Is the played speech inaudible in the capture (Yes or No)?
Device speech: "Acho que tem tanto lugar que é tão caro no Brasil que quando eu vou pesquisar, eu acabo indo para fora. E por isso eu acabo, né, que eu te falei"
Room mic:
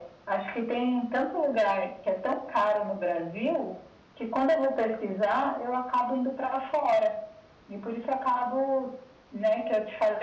No